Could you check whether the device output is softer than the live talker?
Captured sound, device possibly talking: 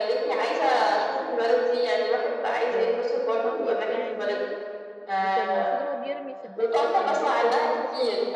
No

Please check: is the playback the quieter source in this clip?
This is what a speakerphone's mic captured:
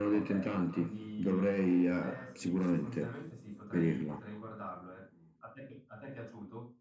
No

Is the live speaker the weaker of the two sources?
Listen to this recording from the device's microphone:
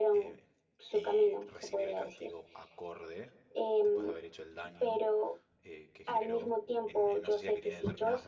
Yes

